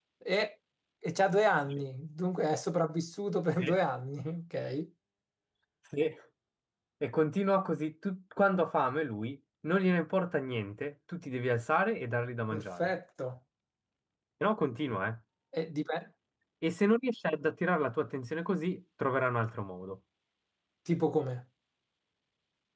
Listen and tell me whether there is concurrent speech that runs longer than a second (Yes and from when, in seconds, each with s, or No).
No